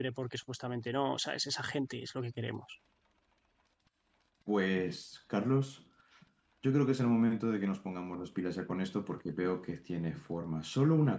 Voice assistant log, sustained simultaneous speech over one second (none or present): none